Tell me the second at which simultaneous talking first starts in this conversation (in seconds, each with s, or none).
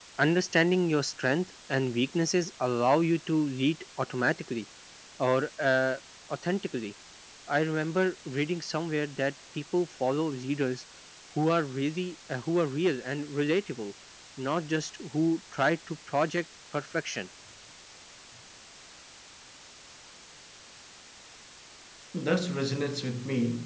none